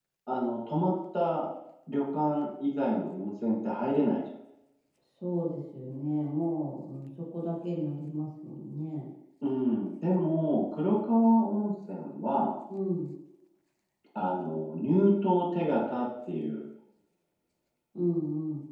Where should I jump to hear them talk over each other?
none

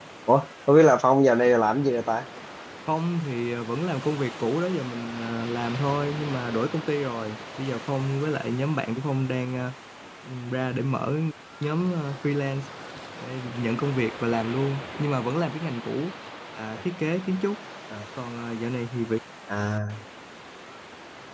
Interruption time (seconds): none

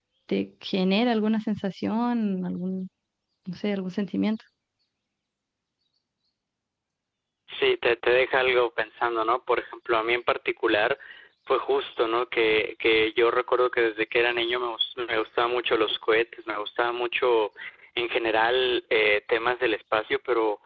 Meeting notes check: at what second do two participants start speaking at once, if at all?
none

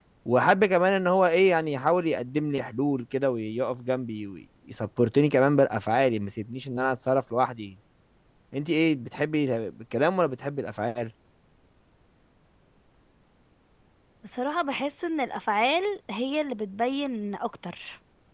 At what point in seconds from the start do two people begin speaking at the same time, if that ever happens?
none

